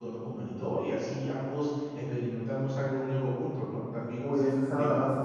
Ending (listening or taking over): taking over